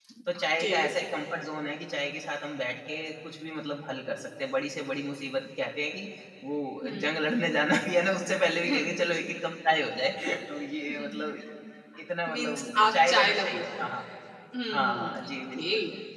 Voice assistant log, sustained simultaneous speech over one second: present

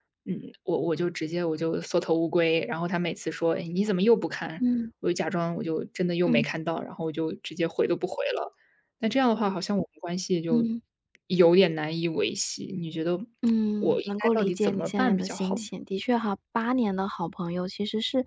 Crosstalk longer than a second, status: present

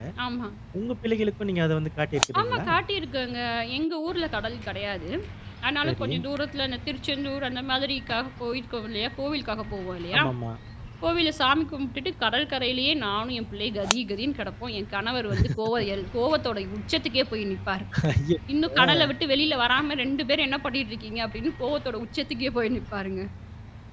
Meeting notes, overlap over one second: none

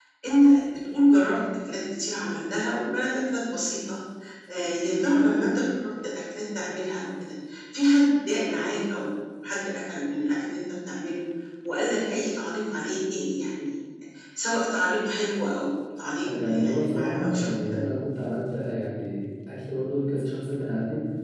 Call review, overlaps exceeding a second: present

